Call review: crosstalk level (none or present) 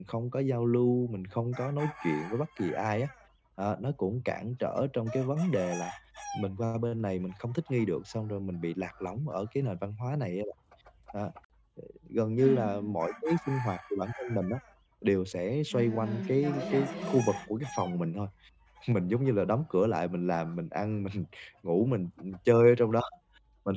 present